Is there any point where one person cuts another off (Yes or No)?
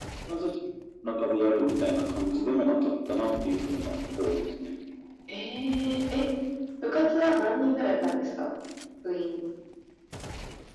No